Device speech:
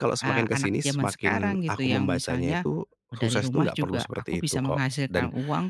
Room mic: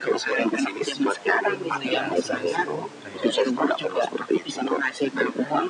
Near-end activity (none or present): present